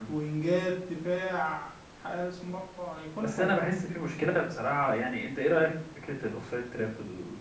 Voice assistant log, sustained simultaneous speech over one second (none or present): none